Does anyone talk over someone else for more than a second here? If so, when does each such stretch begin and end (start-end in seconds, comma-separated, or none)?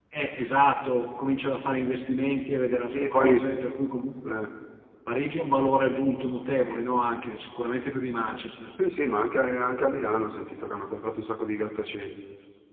none